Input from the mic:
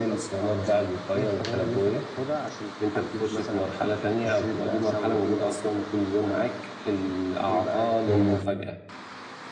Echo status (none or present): present